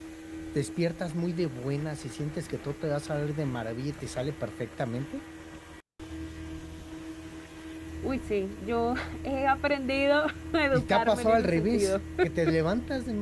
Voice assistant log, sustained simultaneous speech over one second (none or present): present